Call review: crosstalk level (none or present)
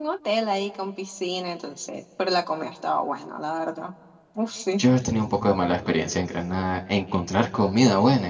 none